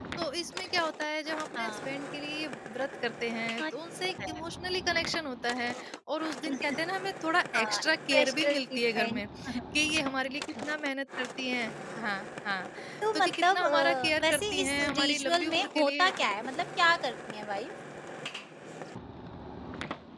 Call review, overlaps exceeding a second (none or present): present